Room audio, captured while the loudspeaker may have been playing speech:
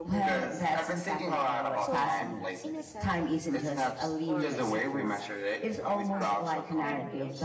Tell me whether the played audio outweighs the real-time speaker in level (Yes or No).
Yes